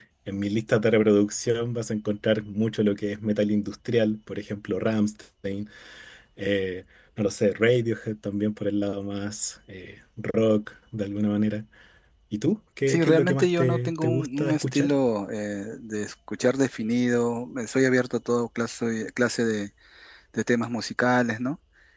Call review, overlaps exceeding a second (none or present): present